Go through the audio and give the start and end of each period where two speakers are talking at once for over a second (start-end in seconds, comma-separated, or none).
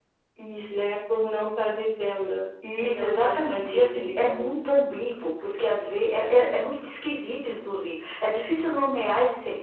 2.8-4.5